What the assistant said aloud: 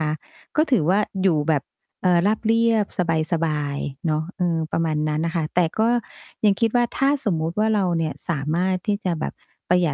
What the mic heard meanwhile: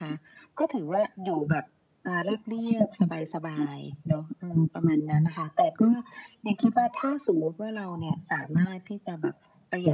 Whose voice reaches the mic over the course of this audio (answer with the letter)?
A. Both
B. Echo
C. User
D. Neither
B